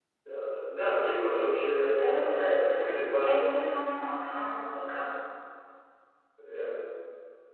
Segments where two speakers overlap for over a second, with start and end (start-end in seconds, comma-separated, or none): 2.0-4.0